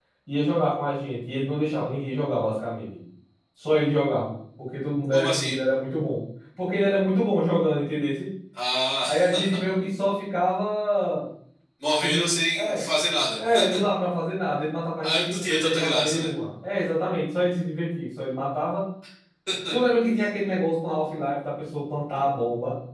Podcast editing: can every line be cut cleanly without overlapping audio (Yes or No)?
No